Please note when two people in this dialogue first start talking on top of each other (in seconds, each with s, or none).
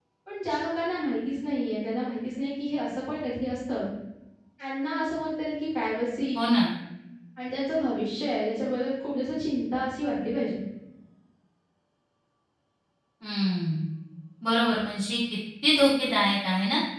none